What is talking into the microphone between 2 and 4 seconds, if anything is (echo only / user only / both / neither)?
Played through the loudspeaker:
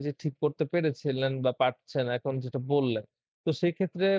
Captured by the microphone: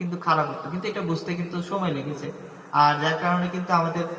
user only